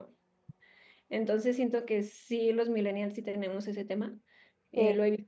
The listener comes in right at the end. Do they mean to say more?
No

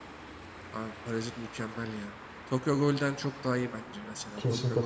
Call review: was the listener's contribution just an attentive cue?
No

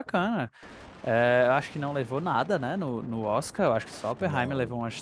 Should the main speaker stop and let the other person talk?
No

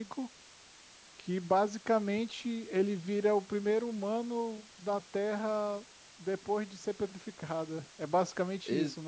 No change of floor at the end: No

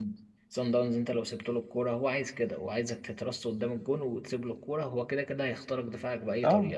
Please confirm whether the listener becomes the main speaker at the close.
Yes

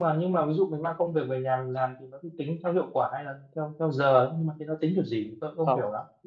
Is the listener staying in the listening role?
No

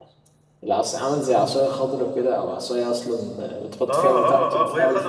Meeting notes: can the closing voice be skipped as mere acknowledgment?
No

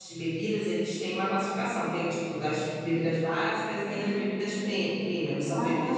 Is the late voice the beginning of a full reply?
Yes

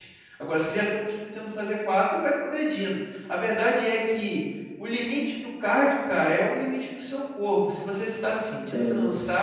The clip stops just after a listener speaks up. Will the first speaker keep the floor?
Yes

